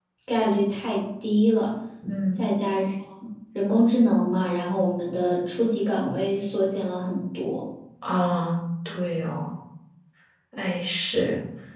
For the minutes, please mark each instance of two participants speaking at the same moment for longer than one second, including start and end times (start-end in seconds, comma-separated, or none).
none